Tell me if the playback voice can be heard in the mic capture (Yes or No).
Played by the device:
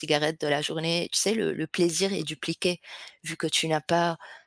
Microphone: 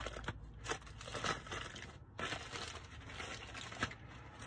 No